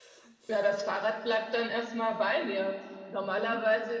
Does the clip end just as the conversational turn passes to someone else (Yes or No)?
No